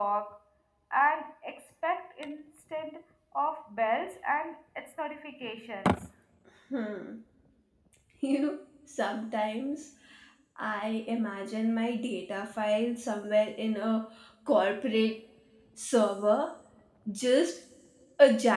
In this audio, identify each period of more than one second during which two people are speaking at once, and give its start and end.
none

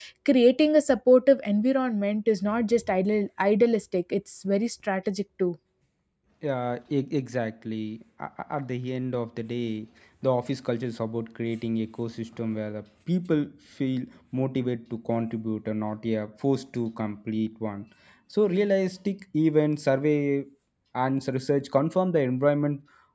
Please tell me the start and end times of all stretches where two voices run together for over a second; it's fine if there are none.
none

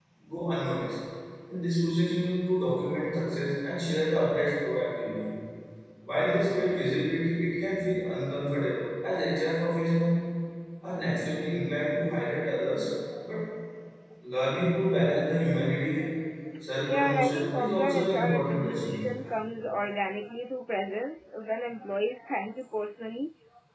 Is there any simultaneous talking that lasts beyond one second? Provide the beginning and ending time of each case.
16.9-19.1

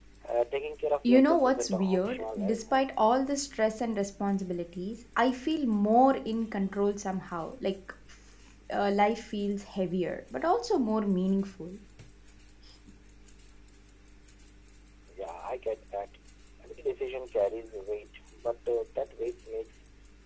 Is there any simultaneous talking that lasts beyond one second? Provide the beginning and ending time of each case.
1.0-2.9

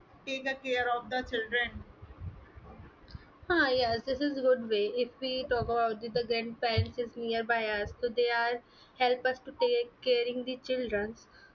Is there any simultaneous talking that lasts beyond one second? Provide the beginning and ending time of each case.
none

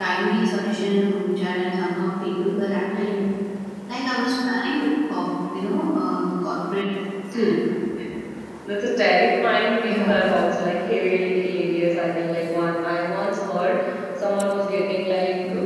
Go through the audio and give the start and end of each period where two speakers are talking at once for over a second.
none

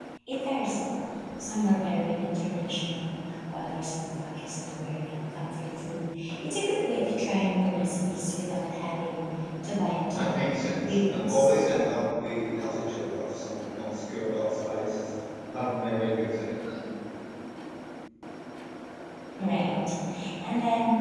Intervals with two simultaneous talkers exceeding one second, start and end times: 10.1-11.5

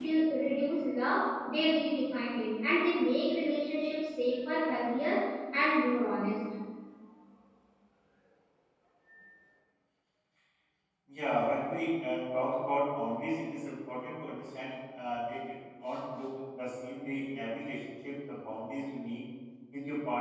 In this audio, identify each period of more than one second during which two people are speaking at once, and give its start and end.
none

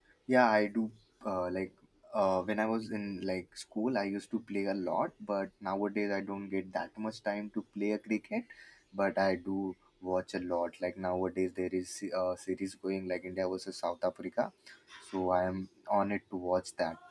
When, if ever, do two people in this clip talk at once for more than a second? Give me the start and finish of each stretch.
none

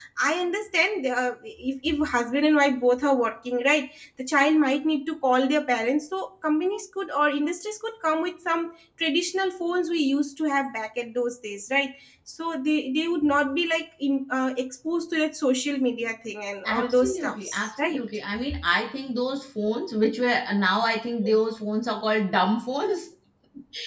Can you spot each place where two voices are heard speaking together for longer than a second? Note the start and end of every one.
16.6-18.0

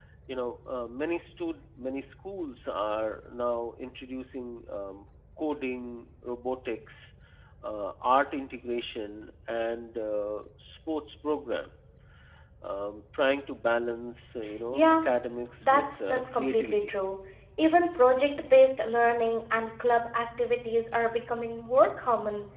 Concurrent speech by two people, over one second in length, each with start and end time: 15.6-16.9

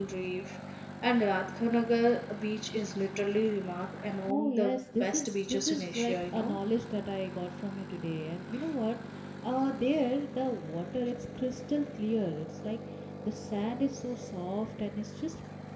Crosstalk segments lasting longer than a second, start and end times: 4.3-6.6

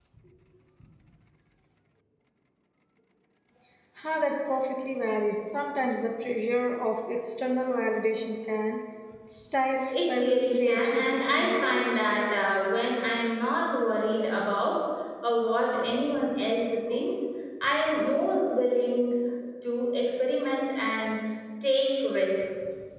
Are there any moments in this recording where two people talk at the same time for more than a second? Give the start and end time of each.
9.9-12.0

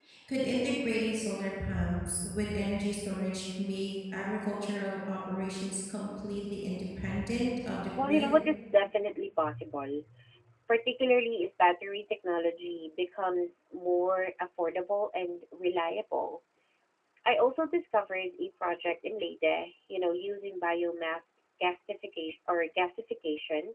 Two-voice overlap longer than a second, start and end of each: none

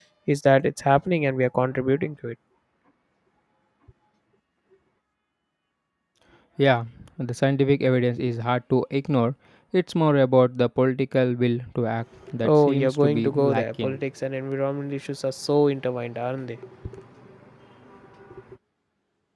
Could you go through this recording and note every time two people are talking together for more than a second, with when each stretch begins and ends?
12.4-14.0

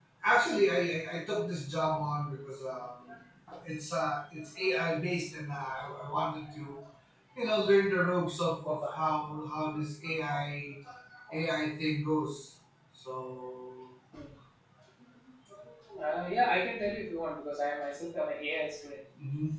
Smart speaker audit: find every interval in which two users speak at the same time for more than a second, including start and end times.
none

